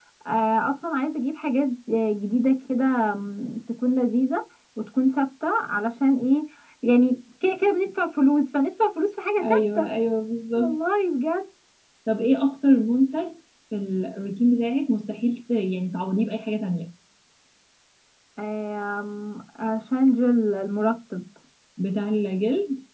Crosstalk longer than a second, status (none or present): none